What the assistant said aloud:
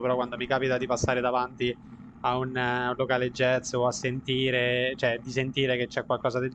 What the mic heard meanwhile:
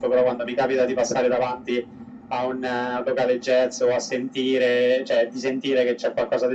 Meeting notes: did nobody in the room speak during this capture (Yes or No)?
Yes